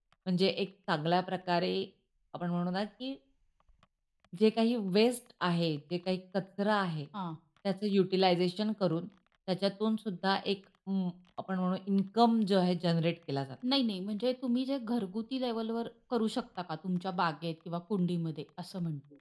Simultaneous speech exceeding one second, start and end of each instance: none

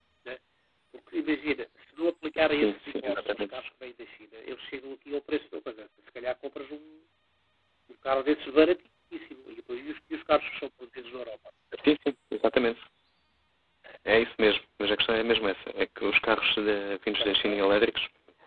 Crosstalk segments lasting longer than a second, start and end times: 2.4-3.6

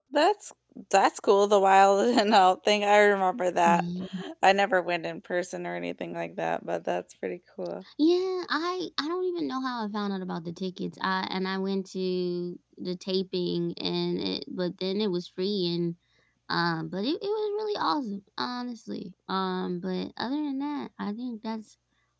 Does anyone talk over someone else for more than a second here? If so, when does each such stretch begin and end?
none

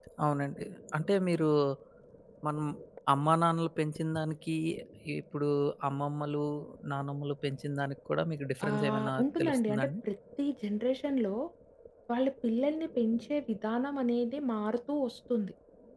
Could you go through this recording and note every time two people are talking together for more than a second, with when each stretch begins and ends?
8.7-9.9

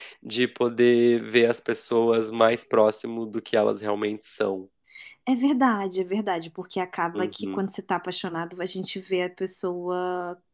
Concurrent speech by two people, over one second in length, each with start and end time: none

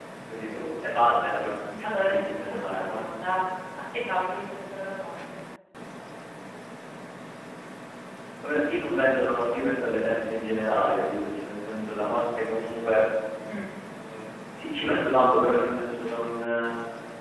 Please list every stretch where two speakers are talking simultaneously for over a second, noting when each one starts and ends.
1.8-3.1

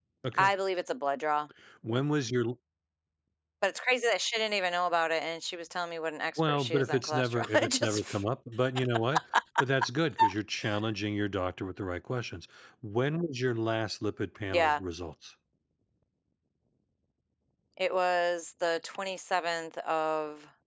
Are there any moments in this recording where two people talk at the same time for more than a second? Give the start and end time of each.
6.4-8.0

